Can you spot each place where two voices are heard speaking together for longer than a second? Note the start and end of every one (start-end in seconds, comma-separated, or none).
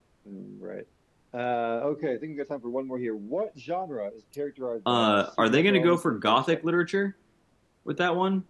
4.9-6.6